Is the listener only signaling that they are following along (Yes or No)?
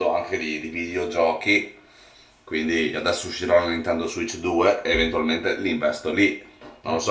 No